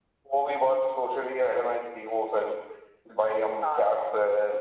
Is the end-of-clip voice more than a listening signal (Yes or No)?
No